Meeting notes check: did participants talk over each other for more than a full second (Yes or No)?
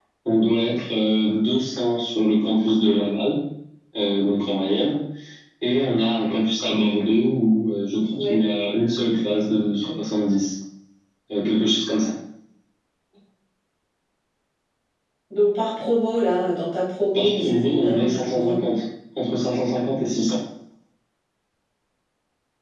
Yes